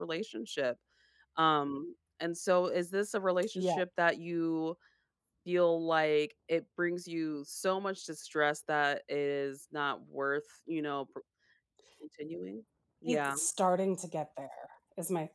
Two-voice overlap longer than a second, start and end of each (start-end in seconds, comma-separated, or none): none